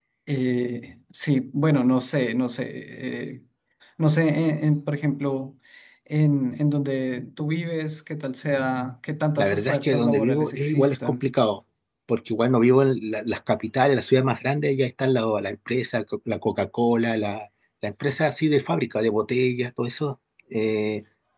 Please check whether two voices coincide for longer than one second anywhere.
Yes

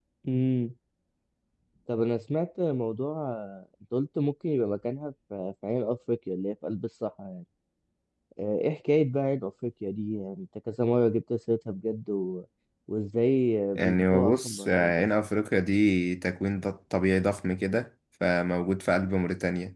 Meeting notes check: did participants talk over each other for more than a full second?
Yes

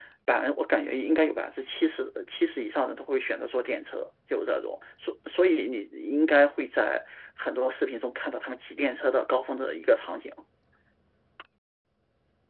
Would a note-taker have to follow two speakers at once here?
No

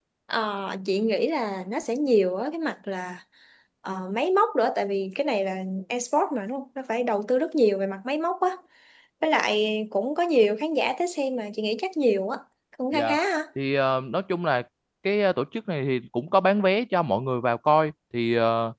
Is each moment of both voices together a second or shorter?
Yes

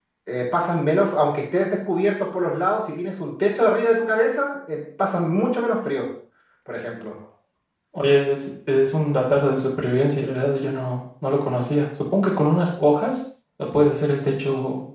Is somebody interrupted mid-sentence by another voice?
No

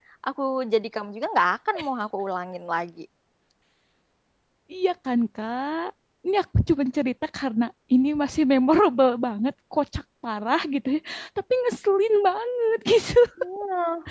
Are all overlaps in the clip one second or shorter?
Yes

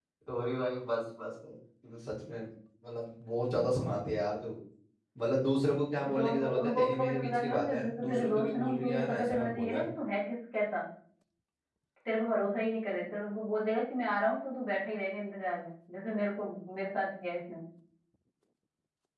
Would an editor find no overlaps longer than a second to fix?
No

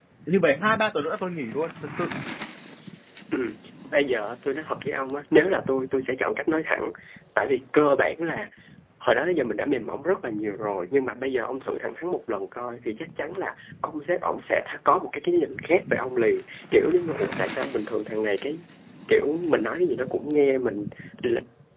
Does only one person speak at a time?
Yes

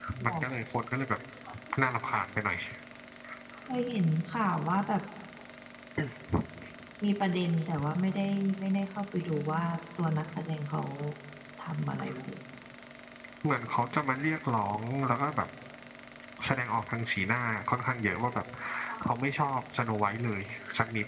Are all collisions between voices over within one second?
Yes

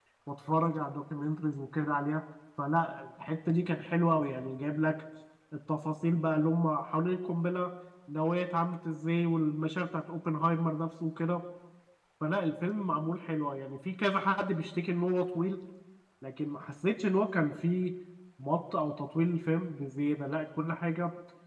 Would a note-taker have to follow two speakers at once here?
No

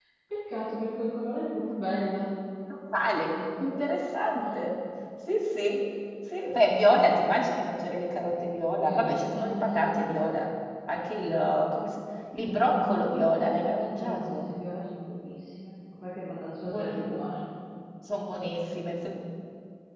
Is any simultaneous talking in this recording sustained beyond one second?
Yes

